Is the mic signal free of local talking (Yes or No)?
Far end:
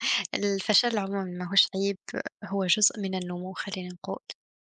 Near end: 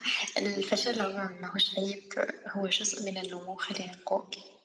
No